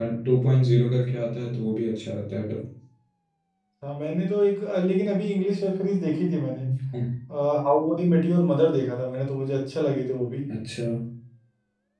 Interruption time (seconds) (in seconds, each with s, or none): none